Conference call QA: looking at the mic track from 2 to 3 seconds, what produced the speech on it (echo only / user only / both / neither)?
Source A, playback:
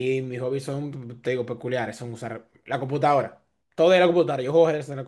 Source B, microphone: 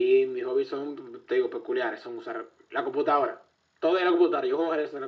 echo only